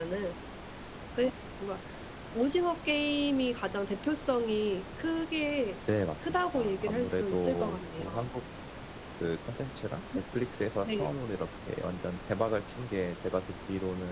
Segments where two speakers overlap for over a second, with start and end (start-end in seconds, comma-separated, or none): 6.2-8.3